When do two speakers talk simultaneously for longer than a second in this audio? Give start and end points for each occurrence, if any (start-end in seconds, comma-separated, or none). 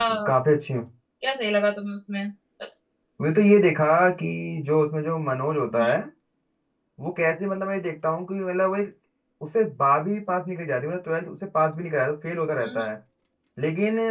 none